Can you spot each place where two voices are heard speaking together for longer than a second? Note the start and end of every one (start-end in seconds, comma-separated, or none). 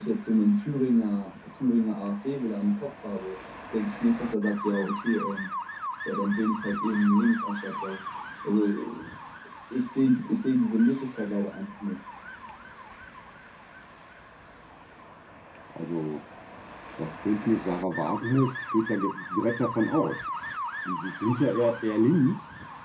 none